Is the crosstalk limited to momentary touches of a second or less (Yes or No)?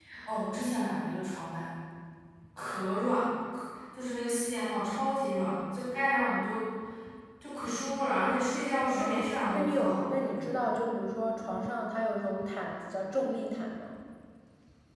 No